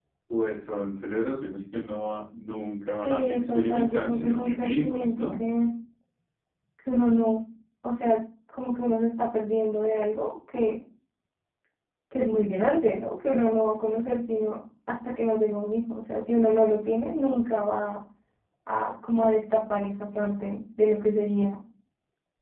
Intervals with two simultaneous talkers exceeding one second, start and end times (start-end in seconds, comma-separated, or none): 3.0-5.4